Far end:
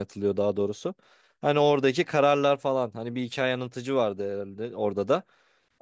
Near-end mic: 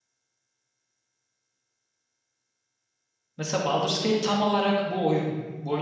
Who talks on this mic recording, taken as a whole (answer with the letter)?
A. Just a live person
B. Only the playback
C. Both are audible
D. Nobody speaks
A